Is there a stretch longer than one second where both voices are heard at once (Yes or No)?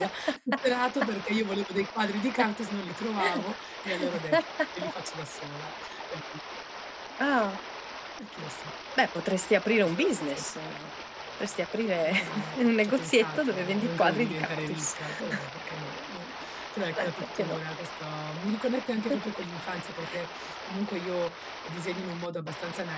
Yes